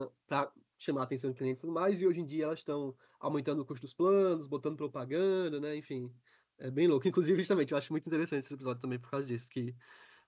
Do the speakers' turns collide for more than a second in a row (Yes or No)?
No